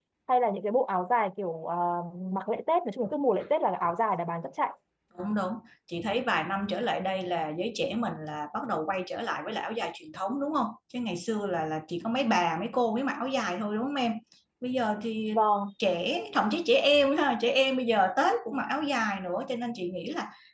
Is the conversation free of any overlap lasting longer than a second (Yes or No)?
Yes